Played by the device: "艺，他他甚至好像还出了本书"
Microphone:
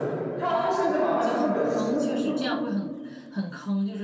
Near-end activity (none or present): present